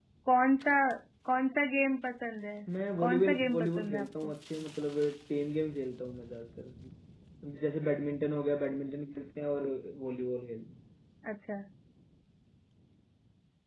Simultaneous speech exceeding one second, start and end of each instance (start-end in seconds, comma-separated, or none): 3.0-4.3